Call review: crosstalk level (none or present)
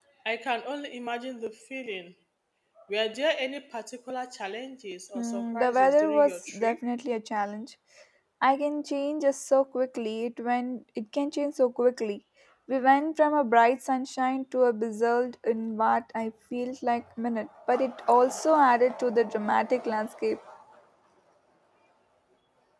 present